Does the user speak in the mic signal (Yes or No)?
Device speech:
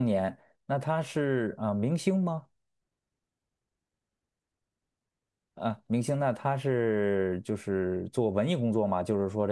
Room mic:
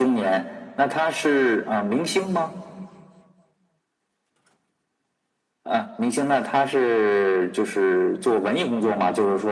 No